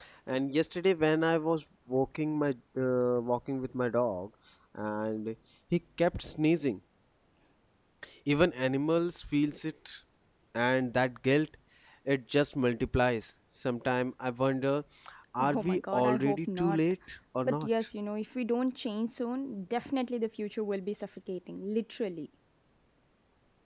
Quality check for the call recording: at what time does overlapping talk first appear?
15 s

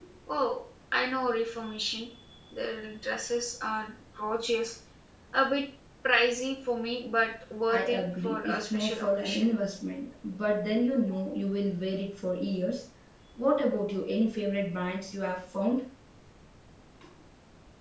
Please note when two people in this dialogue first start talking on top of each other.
8 s

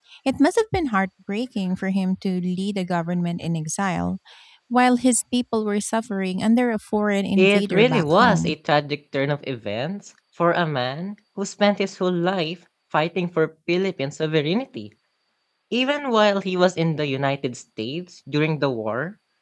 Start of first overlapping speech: 7 s

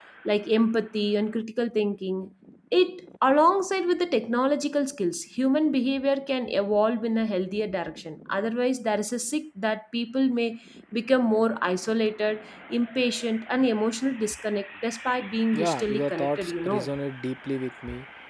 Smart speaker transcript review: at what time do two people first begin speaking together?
16 s

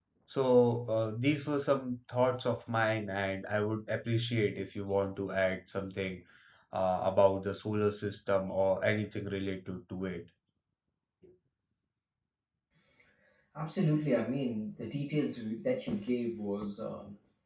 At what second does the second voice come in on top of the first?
none

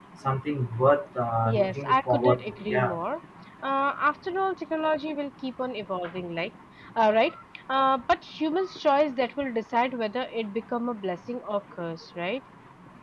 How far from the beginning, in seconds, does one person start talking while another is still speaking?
1 s

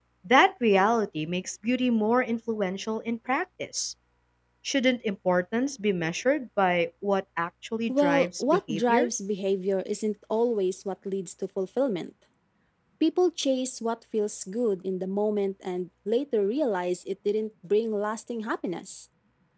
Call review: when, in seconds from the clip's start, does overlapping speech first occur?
8 s

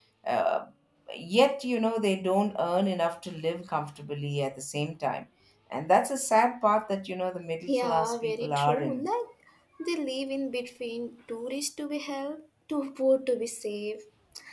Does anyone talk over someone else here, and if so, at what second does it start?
8 s

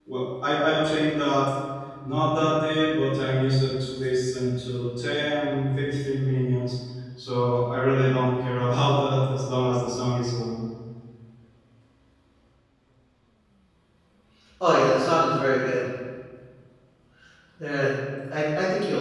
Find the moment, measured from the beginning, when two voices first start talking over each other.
none

